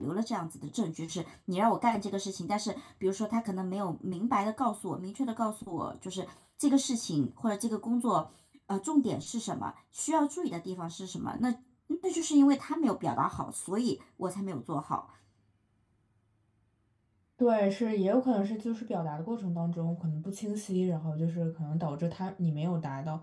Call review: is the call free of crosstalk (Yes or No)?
Yes